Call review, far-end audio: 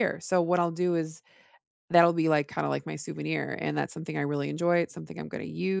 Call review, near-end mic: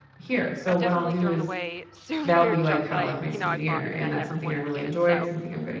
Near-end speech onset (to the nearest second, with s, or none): 1 s